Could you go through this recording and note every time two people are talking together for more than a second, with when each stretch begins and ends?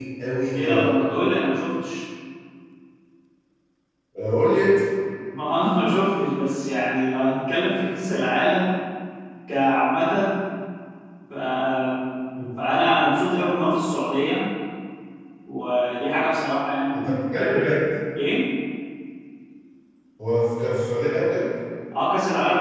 none

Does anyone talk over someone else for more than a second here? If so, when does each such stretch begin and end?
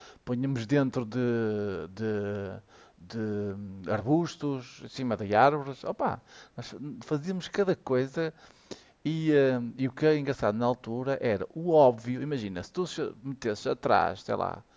none

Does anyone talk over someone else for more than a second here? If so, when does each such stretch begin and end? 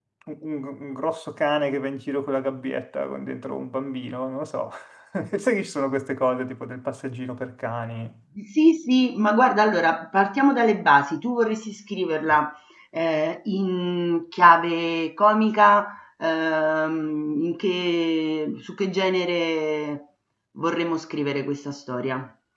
none

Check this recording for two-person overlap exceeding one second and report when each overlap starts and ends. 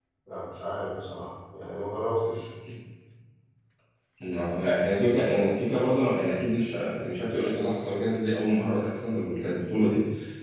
none

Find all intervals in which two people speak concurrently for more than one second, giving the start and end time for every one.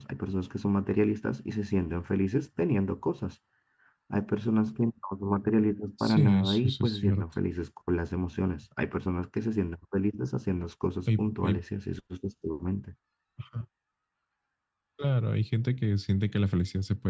6.0-7.2

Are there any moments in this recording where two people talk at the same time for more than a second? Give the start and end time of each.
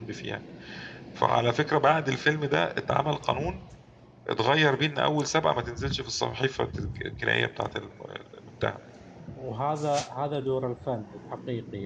none

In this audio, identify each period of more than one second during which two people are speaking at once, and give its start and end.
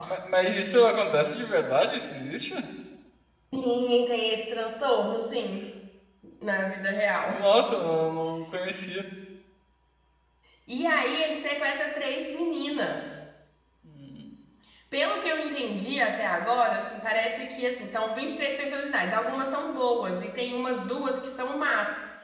none

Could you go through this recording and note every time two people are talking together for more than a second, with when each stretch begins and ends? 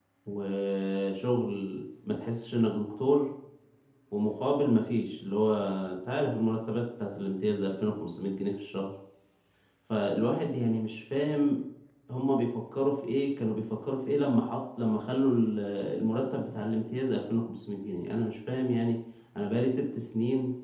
none

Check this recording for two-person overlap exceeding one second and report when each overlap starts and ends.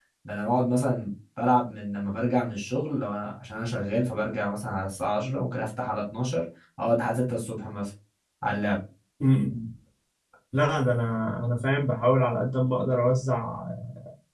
none

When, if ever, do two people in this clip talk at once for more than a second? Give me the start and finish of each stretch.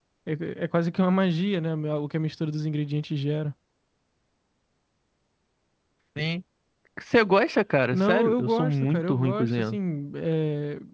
7.9-9.8

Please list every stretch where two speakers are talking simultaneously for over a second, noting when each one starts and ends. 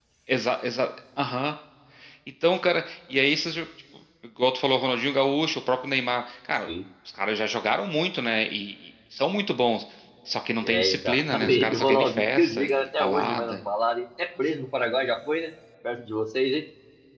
10.6-13.6

